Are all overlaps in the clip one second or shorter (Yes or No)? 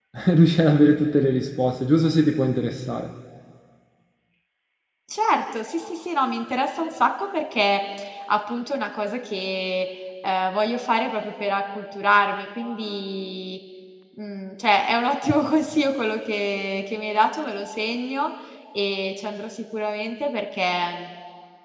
Yes